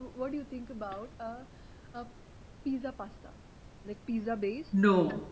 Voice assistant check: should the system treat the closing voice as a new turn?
No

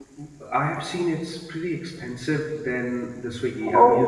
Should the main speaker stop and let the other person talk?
No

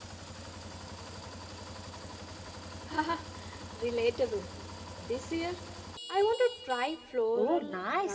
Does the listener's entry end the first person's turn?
Yes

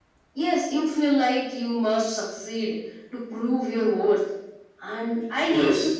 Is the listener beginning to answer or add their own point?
No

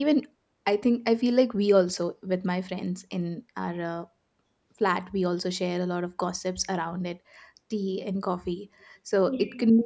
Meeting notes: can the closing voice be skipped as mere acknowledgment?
Yes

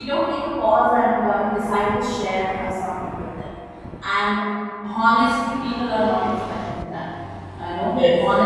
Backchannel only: Yes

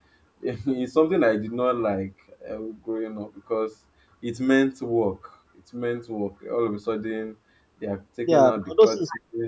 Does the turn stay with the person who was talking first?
No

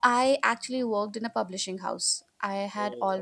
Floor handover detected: No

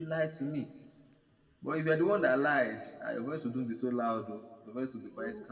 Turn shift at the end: Yes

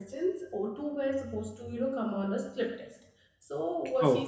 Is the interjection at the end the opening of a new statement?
No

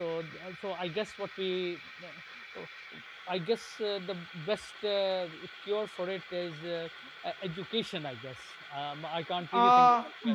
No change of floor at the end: No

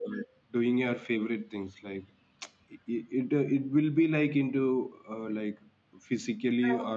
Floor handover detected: No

